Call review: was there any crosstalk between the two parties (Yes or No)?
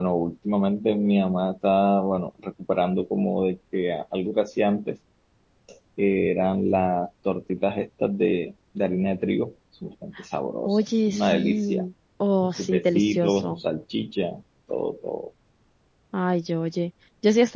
Yes